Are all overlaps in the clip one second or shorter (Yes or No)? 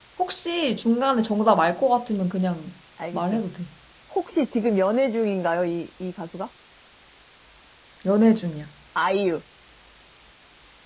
Yes